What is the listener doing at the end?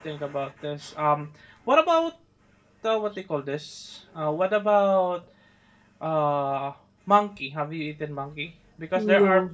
listening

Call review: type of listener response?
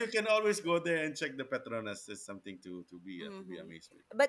taking over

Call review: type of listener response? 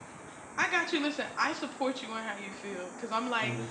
listening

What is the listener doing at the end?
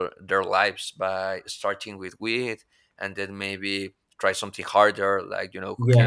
taking over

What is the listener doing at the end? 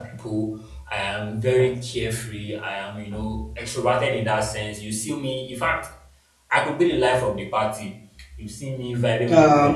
listening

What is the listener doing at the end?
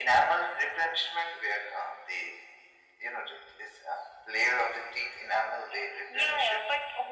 taking over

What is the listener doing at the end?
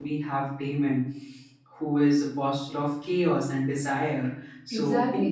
taking over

